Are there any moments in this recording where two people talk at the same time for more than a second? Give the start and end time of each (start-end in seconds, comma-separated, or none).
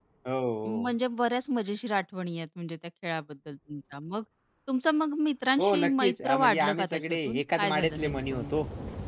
5.6-8.5